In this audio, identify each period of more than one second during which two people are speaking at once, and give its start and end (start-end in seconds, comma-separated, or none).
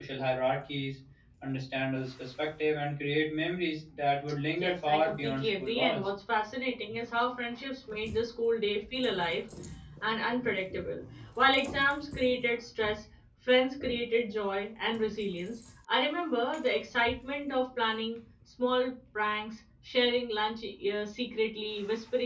4.6-6.1